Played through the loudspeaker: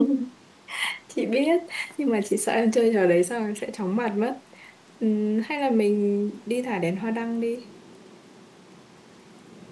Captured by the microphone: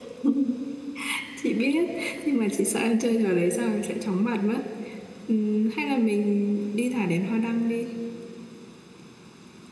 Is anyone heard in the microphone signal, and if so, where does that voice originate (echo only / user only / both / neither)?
echo only